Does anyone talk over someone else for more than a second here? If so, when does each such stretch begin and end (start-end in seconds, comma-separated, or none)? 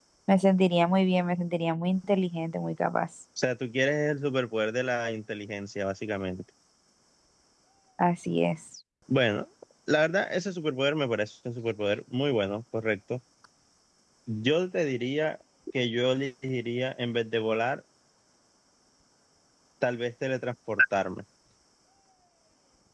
none